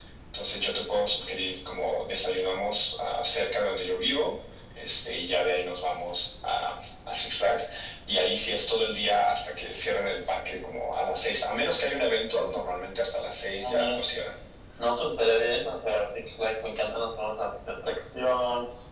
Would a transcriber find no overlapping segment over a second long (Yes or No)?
Yes